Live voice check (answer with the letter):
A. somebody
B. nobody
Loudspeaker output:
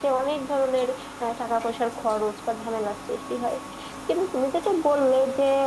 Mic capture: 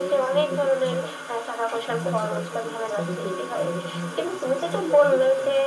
A